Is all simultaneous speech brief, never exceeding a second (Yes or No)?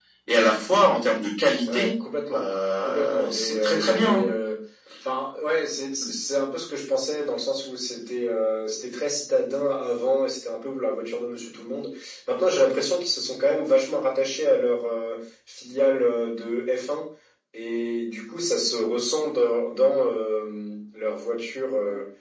No